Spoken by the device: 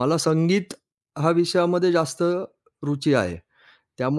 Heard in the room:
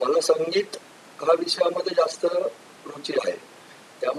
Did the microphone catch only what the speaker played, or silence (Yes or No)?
Yes